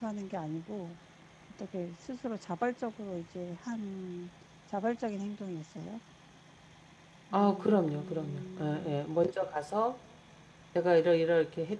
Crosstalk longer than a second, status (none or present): present